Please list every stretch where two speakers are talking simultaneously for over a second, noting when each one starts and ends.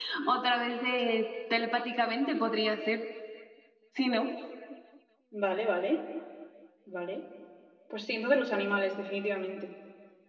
none

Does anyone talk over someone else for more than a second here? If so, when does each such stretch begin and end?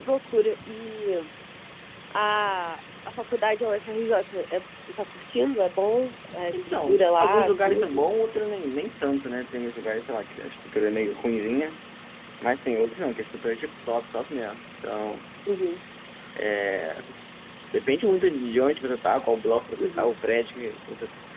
6.5-8.0

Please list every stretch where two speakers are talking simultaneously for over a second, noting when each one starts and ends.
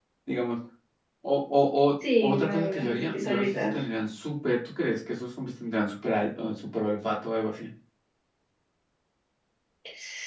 2.2-3.7

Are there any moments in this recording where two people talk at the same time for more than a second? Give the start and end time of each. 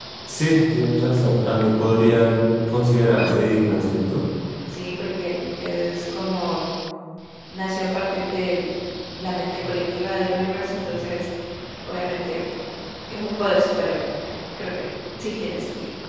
none

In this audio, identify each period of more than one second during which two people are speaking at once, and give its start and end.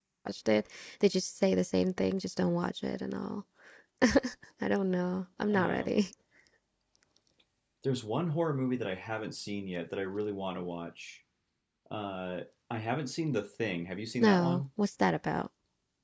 none

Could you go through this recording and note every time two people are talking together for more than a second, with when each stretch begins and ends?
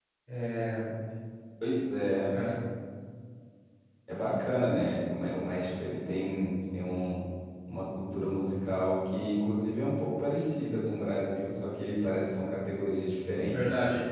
none

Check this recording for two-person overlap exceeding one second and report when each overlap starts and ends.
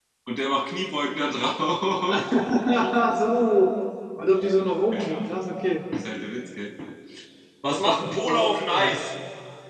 7.7-9.0

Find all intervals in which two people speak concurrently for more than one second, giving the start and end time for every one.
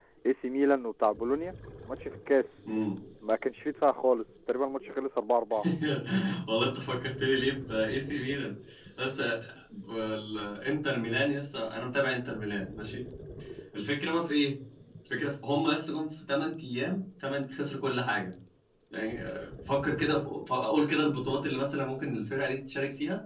none

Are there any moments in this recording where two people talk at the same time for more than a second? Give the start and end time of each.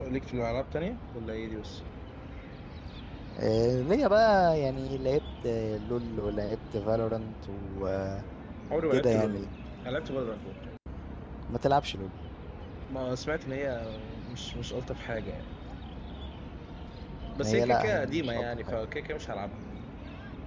17.4-18.8

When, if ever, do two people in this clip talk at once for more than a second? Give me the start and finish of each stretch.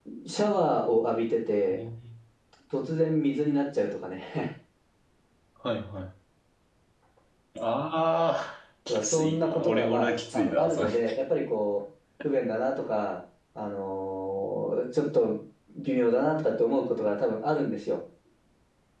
8.9-10.9

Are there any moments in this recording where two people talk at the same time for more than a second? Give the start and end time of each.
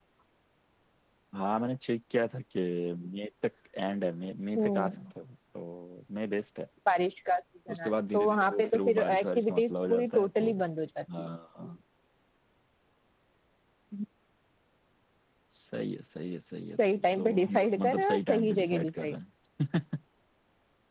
7.7-10.5, 17.2-19.2

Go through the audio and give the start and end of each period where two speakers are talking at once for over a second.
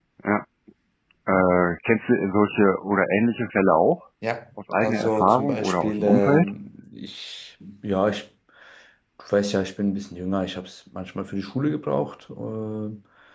4.8-6.5

